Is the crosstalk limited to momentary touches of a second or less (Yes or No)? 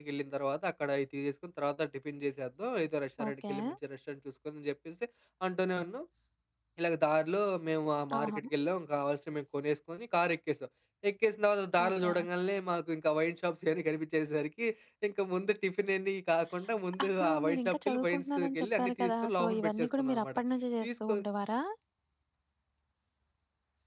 No